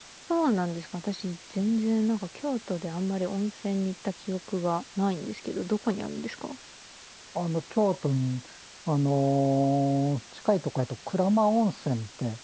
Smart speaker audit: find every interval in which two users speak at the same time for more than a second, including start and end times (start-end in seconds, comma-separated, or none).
none